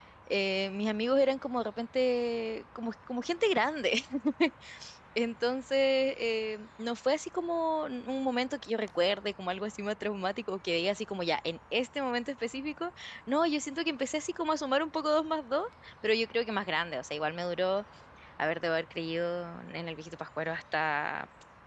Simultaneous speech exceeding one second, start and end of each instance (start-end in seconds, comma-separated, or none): none